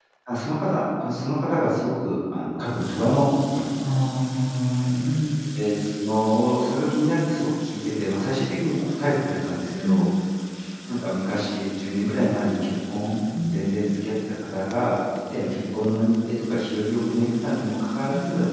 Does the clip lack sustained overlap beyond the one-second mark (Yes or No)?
Yes